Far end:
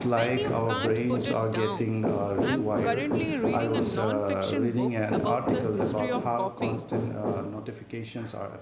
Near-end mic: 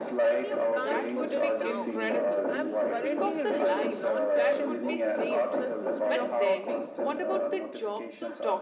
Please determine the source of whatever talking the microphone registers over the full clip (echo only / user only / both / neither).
both